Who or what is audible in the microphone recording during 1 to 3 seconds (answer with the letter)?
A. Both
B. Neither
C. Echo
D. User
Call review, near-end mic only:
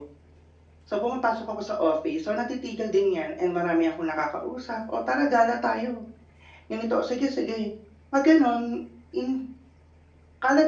C